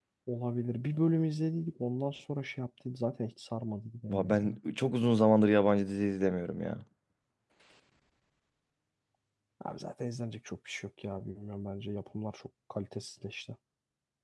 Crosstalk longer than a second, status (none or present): none